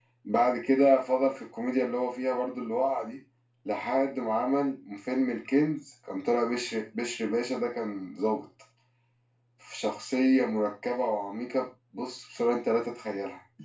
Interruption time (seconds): none

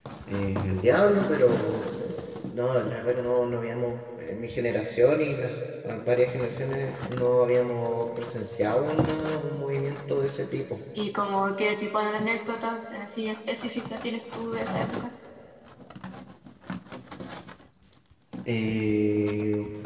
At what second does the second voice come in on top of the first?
none

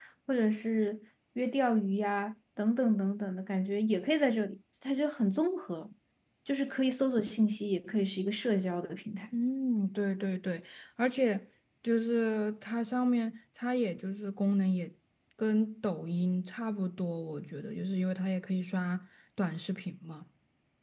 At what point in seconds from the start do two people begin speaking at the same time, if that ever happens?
none

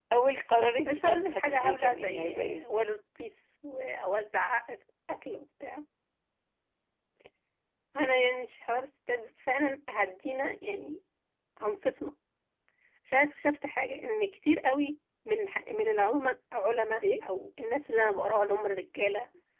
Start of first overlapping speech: 0.8 s

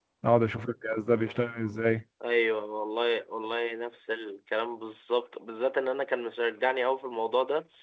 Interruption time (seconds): none

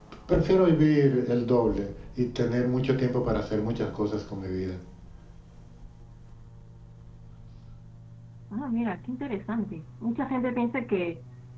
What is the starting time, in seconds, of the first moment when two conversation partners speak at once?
none

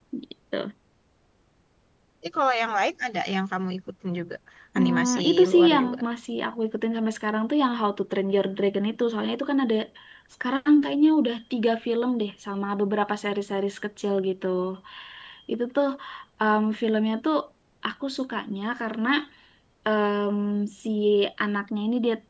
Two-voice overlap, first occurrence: 4.8 s

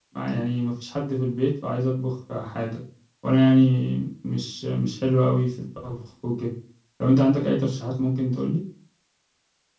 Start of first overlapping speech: none

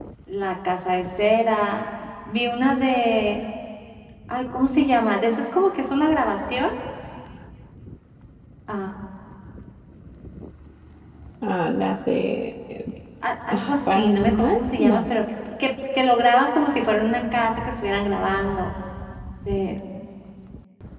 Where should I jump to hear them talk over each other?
13.5 s

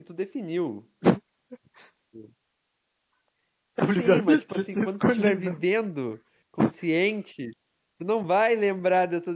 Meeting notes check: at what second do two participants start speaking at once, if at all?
3.8 s

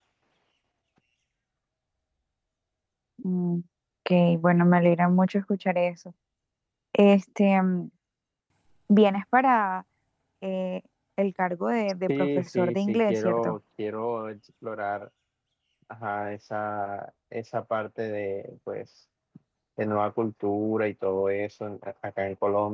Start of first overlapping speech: 12.1 s

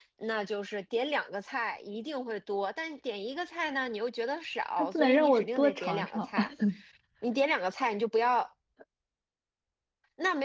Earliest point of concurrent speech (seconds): 4.8 s

